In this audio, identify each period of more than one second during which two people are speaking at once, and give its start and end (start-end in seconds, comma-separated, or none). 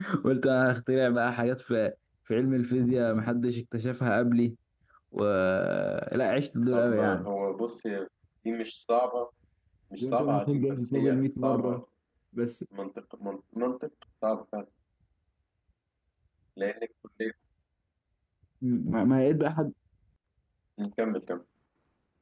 10.0-11.8